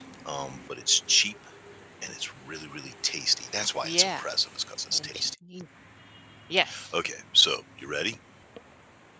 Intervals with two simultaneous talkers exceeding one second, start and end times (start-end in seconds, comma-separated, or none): none